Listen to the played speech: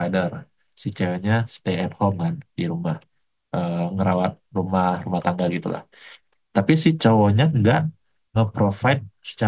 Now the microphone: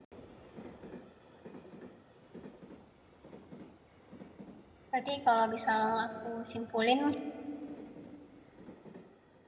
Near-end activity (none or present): present